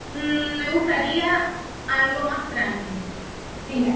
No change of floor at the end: Yes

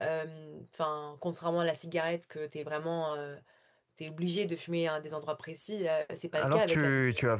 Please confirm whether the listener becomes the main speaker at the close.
Yes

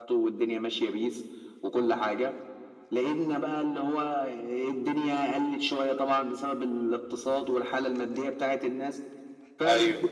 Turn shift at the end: No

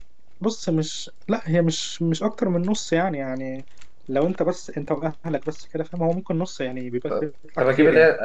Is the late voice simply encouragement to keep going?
No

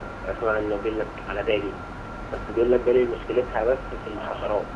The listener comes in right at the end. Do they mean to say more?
Yes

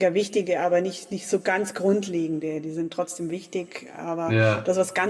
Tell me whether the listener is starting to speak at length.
No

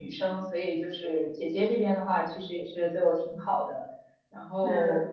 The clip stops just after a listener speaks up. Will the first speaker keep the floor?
Yes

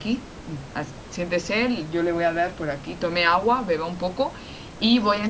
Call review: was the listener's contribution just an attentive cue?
Yes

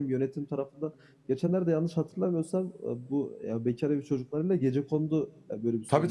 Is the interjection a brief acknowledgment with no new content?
No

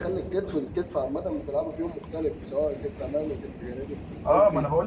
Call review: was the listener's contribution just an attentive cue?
No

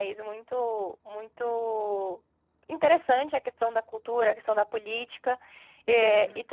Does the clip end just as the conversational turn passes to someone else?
No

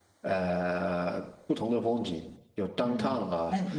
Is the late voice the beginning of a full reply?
Yes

